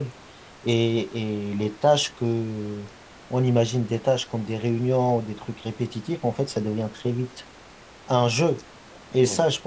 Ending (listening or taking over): listening